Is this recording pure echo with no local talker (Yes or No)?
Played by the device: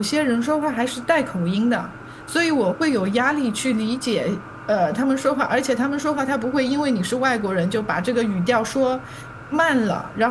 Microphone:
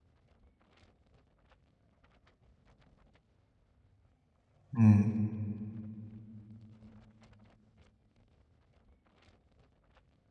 No